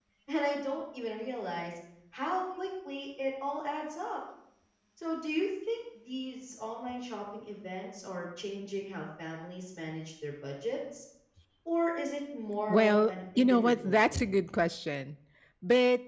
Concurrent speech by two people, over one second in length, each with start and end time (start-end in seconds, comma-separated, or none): 12.7-14.2